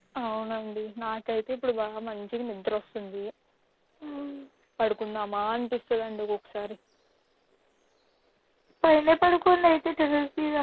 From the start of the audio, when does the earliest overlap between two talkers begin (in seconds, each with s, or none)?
none